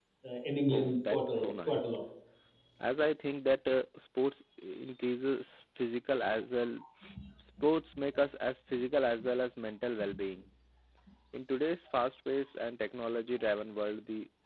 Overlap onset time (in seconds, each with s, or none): 0.7 s